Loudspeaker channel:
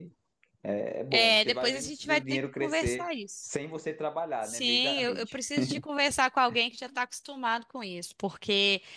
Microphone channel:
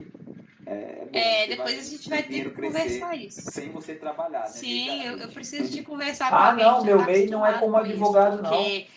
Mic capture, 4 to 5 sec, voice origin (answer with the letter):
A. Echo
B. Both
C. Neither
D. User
A